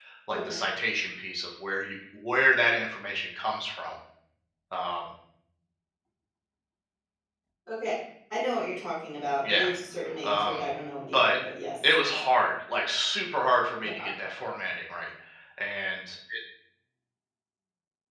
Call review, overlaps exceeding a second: none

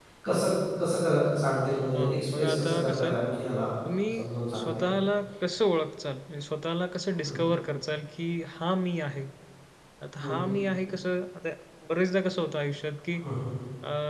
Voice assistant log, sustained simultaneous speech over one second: present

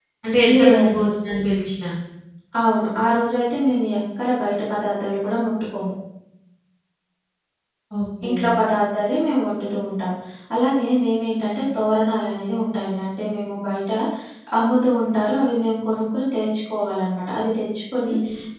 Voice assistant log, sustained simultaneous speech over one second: none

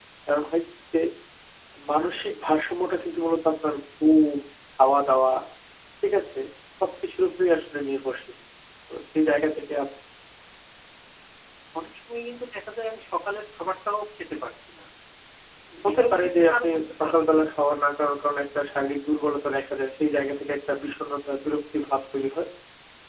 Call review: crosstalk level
present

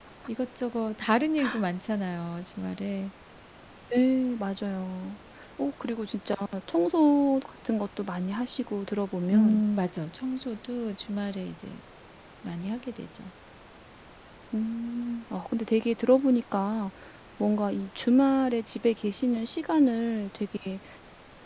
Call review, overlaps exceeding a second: none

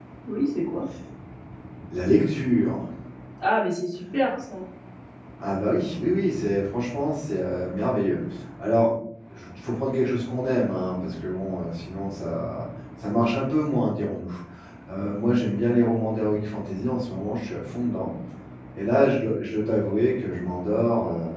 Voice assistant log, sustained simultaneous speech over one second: none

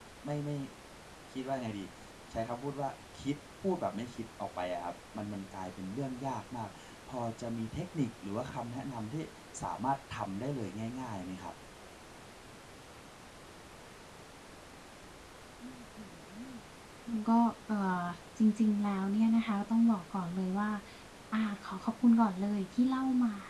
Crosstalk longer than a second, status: none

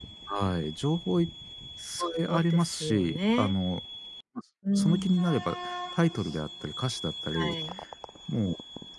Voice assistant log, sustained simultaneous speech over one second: present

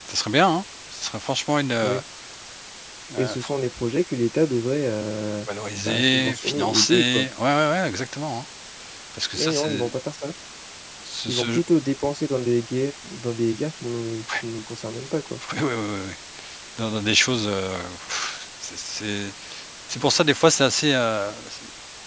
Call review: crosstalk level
present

